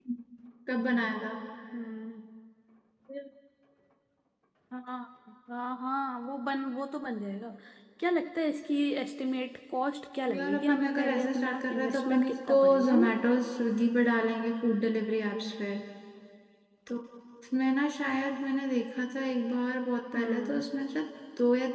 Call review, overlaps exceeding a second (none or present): present